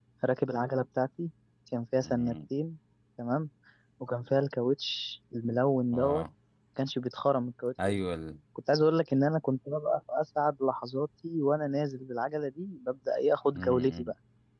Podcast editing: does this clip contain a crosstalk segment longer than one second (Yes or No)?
No